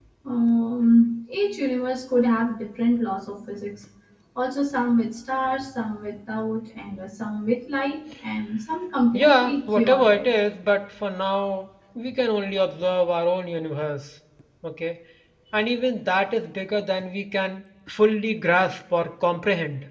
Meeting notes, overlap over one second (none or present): present